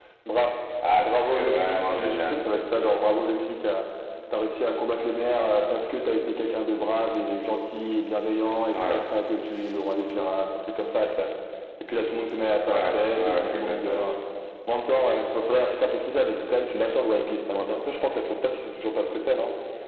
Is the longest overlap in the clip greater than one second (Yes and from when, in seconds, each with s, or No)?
Yes, from 1.0 s